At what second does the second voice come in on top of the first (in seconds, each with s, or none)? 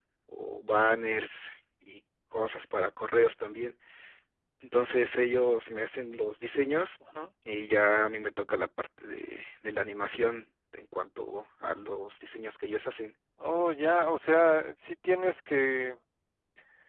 none